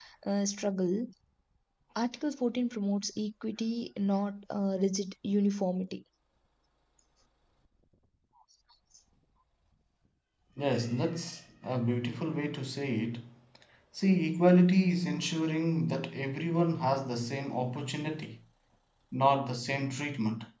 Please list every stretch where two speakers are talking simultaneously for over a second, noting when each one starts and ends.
none

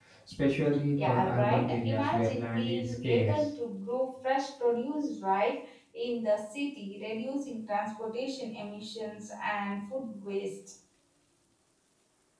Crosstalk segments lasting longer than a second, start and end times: 1.0-3.4

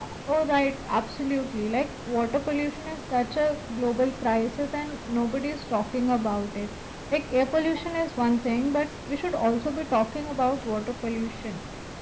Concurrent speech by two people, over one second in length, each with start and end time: none

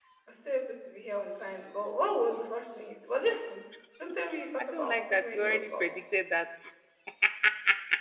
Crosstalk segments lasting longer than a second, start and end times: 4.7-5.9

